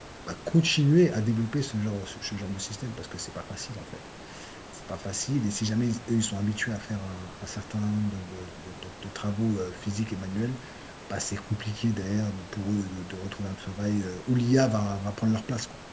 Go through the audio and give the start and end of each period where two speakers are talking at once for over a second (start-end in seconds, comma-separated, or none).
none